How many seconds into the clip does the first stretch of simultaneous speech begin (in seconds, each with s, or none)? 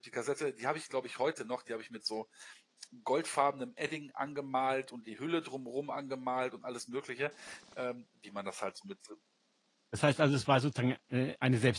none